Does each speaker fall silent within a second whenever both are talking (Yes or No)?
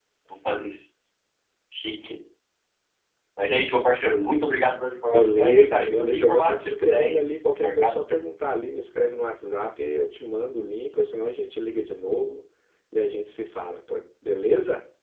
No